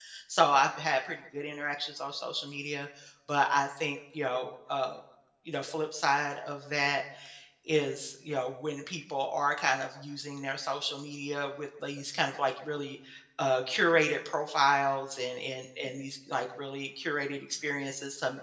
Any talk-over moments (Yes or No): No